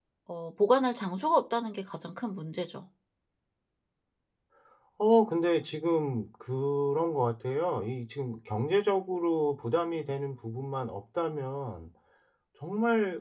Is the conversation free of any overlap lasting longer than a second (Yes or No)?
Yes